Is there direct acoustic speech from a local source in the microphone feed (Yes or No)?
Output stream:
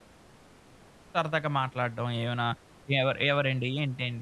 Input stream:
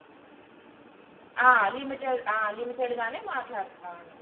Yes